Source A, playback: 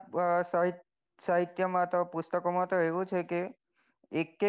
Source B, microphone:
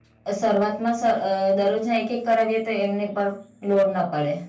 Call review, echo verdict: none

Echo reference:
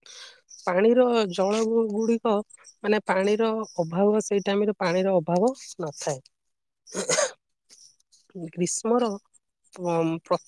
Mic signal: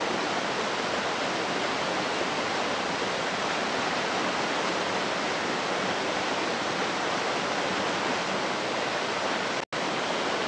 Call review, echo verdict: none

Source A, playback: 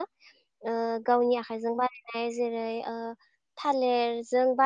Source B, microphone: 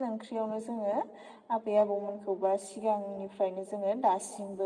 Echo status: none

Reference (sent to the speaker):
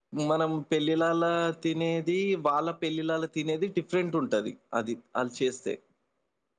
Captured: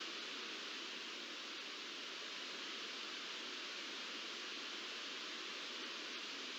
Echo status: none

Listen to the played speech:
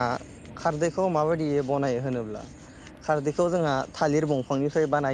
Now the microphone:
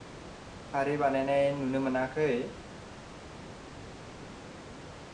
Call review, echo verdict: none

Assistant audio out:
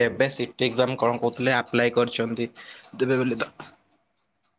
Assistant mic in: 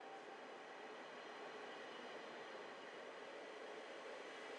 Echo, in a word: none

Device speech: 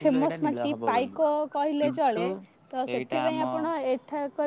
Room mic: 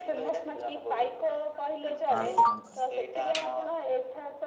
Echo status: present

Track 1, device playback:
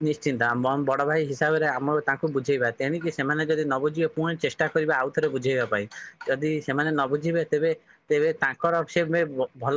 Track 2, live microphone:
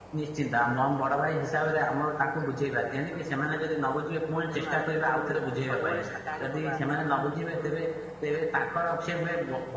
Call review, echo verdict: present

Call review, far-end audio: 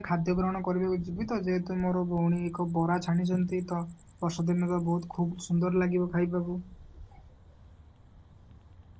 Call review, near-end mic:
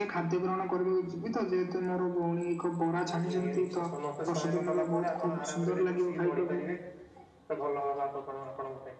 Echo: present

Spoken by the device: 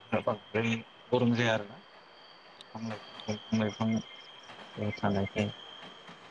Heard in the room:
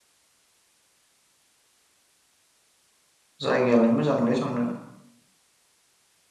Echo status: none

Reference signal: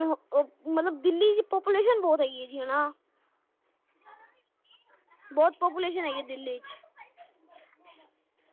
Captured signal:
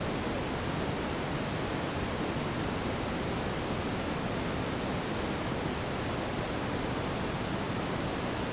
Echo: none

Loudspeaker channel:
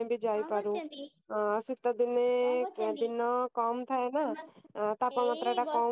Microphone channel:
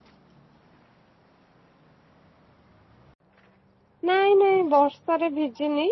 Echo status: none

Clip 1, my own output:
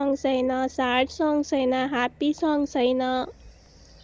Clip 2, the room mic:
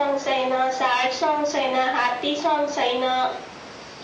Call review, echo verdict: present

